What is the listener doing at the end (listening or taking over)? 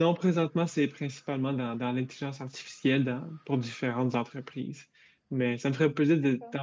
listening